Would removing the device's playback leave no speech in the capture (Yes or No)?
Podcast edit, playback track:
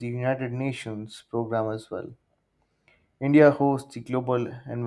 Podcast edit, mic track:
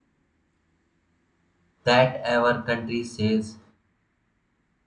No